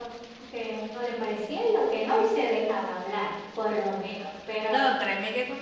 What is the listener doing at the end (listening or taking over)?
taking over